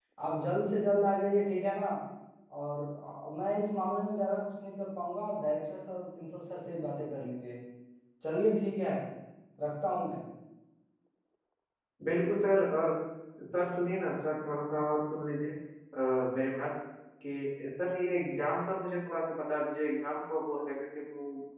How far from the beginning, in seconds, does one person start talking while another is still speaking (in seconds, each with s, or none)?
none